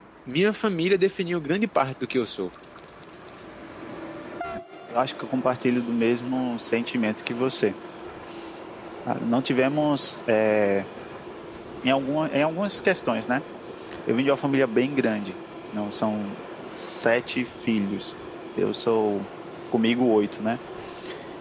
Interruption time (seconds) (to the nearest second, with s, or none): none